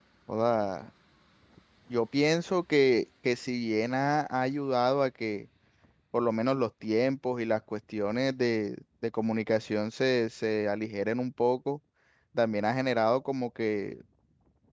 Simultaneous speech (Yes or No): No